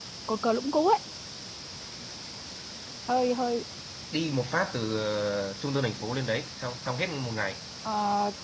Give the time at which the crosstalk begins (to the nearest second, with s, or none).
none